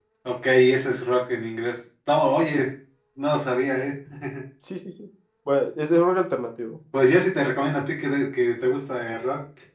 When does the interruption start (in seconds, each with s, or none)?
none